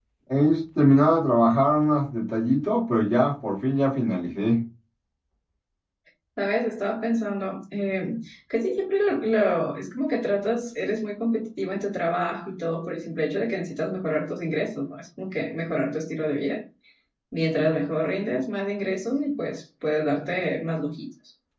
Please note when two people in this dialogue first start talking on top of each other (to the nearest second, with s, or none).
none